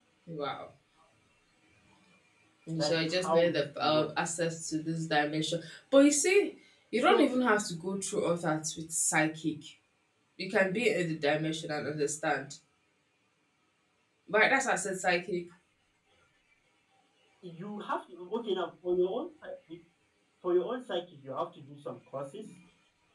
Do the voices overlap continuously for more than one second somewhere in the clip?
Yes, from 2.8 s

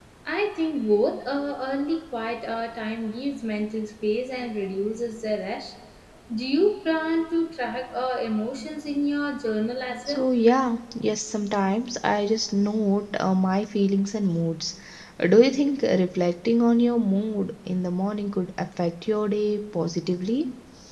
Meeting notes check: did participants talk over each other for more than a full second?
No

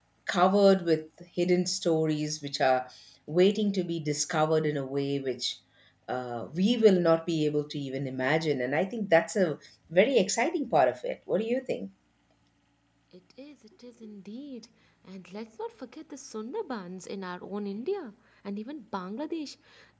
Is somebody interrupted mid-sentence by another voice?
No

